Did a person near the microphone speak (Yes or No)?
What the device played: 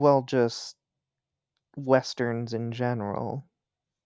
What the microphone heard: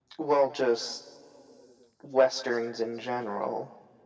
No